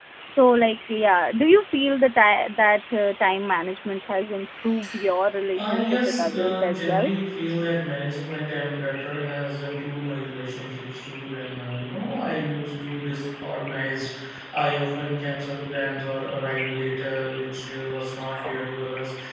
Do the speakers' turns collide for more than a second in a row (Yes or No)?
Yes